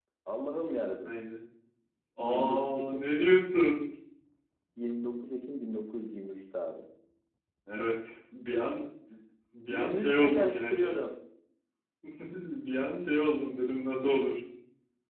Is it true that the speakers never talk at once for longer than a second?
No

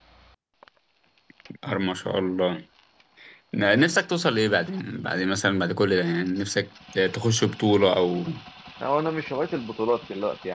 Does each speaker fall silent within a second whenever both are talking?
Yes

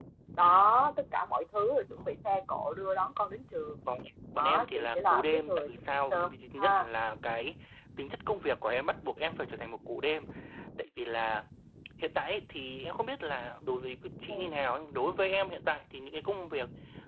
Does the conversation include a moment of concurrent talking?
Yes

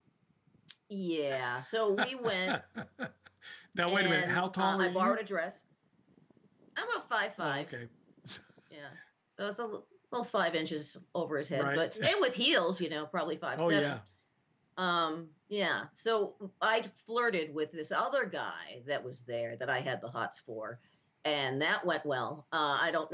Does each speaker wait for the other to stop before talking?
No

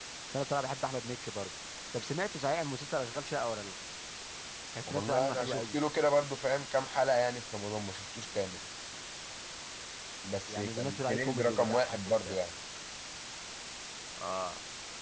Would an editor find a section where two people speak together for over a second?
Yes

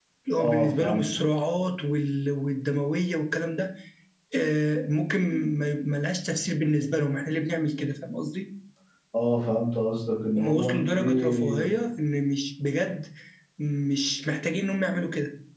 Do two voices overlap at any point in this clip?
Yes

